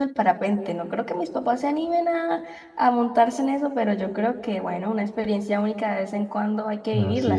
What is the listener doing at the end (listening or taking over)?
taking over